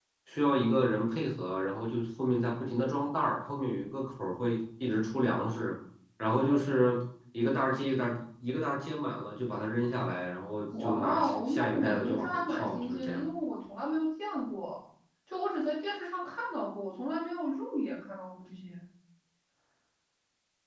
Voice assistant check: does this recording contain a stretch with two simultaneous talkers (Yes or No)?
Yes